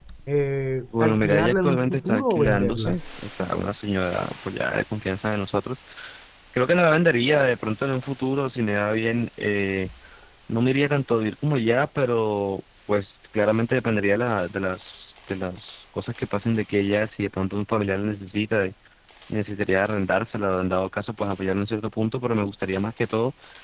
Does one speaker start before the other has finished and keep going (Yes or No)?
Yes